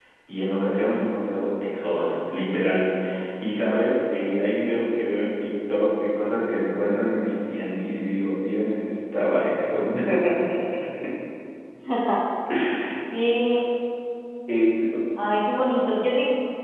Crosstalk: none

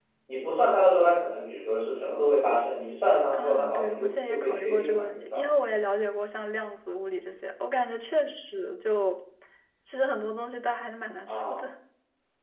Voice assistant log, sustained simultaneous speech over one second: present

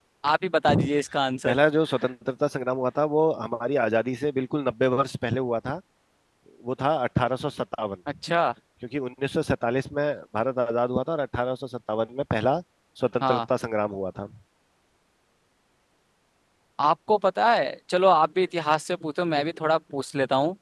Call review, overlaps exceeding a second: none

